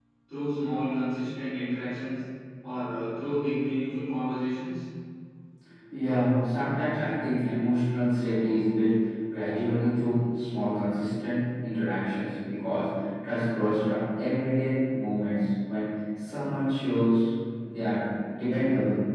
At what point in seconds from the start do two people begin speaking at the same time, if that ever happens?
none

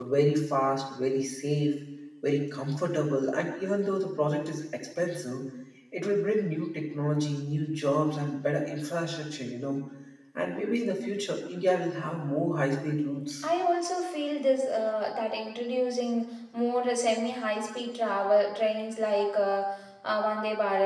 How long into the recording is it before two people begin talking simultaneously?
none

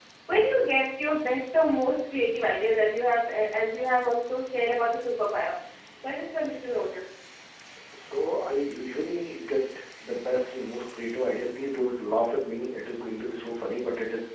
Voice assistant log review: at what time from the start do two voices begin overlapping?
none

